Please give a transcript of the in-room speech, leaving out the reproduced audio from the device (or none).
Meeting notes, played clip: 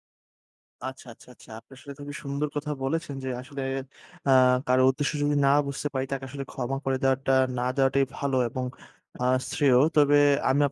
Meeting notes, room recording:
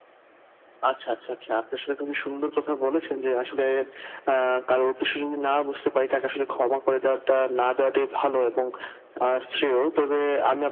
none